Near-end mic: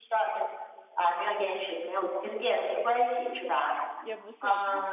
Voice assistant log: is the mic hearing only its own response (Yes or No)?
No